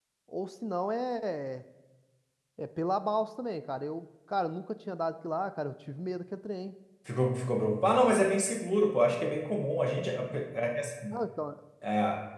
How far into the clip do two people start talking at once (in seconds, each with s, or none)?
none